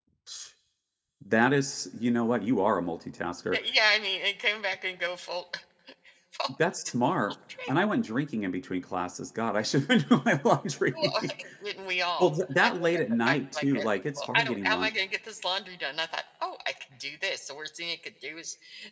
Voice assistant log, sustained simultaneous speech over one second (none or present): present